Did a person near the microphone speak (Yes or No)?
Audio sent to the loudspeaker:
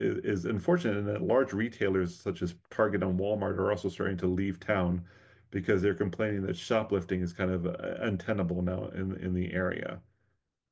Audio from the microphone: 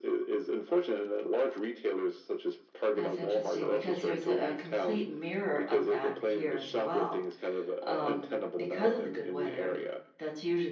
Yes